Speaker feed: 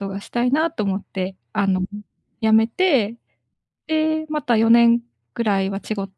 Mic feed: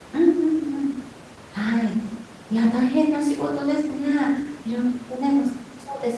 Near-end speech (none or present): present